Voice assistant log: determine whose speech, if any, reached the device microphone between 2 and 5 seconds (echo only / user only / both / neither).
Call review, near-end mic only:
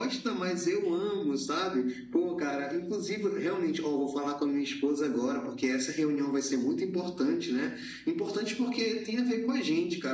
echo only